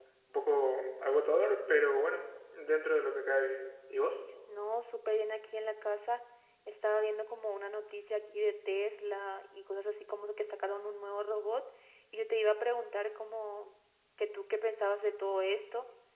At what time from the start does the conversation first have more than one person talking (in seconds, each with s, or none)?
none